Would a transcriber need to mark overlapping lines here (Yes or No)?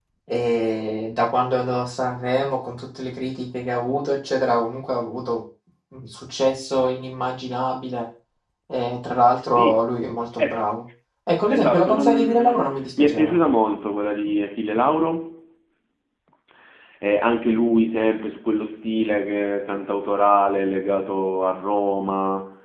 Yes